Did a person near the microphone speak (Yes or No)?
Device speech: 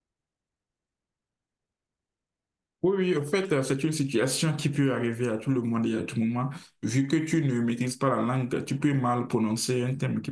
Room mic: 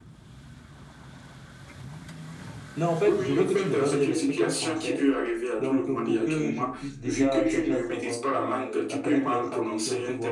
Yes